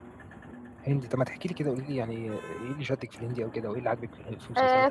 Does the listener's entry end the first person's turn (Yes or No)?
Yes